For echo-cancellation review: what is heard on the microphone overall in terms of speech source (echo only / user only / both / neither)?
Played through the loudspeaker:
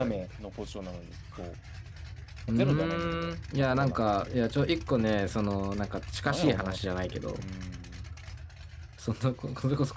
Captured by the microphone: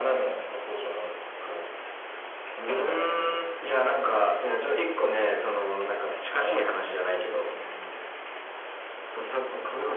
echo only